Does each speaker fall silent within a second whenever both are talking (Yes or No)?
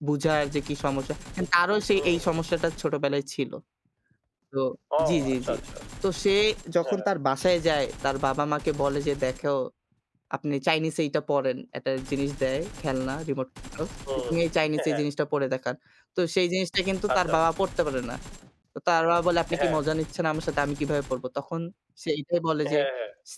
Yes